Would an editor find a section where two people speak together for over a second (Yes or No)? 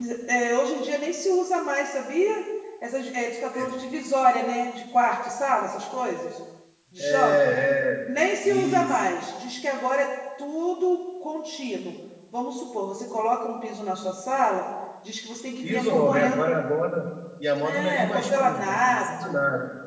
Yes